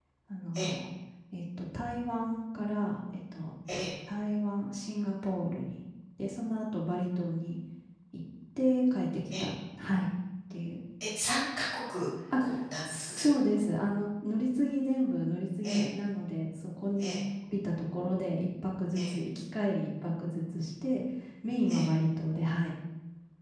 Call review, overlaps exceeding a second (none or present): none